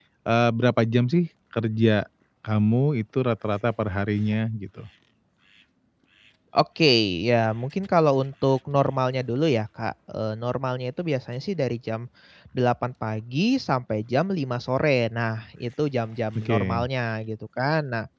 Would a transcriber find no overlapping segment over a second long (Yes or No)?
Yes